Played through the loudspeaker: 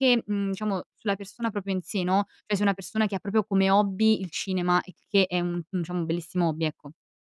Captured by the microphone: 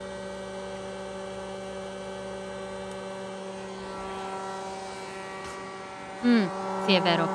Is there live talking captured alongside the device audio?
Yes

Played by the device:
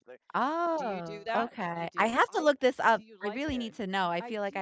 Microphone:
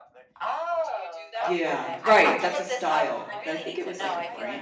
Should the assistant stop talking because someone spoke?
Yes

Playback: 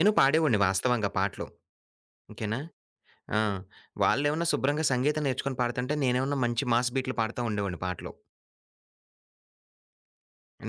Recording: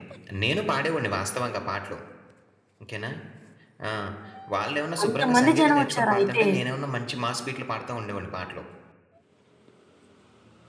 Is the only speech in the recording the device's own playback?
No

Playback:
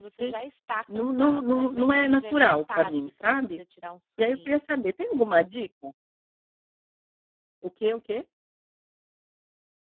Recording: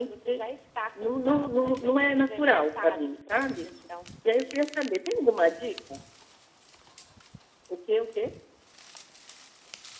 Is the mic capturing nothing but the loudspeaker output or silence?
Yes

